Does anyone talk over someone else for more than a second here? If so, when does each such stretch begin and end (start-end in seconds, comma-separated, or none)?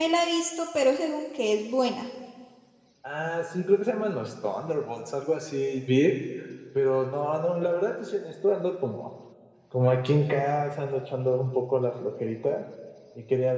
none